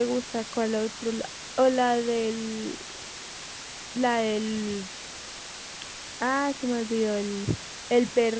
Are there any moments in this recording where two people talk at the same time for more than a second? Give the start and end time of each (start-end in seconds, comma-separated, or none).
none